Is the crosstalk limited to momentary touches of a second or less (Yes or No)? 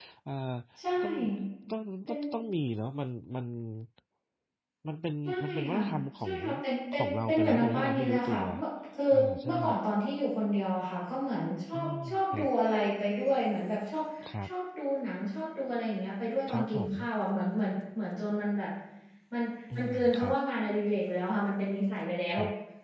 No